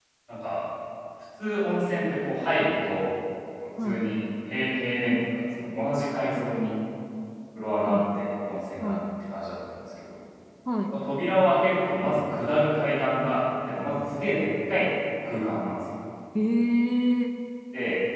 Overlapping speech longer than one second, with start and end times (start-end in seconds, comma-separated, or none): none